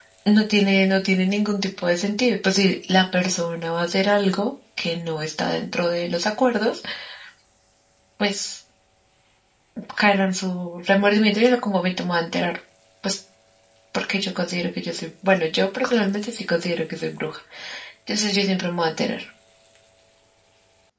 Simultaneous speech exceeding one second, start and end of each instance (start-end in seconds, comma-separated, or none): none